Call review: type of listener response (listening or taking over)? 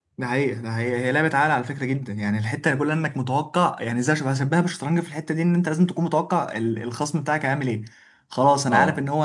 listening